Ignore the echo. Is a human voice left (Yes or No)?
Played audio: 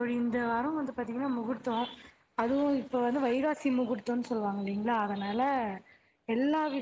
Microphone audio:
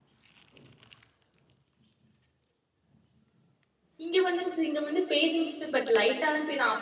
Yes